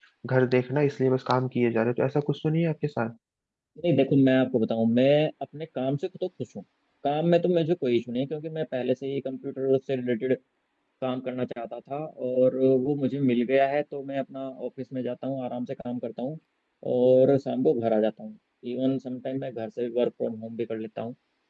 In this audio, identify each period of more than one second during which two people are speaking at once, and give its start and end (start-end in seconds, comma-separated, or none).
none